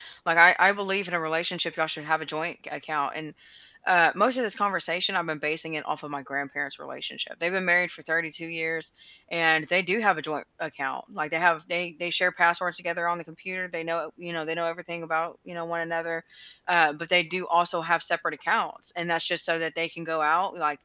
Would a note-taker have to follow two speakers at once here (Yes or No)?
No